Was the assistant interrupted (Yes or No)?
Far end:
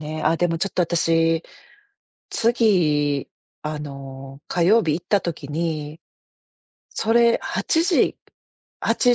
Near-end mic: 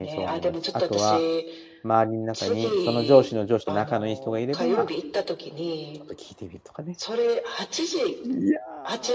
Yes